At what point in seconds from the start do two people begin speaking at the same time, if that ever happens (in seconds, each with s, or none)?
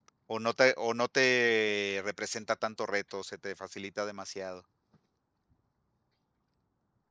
none